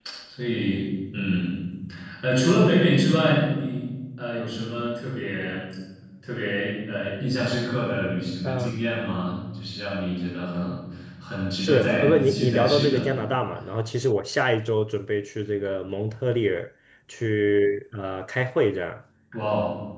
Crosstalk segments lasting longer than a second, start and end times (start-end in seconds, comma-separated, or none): 11.6-13.0